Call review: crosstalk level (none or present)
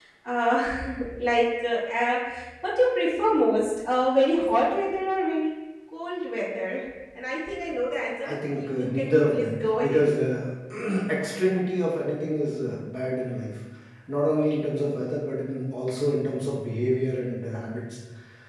present